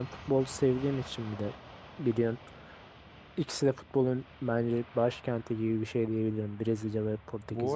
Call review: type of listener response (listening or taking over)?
taking over